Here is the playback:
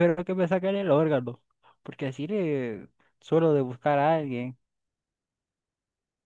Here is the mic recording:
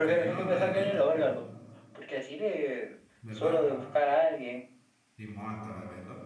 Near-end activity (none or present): present